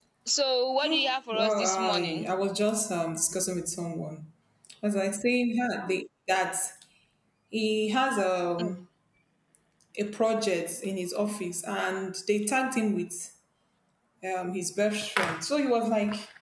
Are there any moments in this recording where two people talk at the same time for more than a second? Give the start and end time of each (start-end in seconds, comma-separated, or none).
0.8-2.3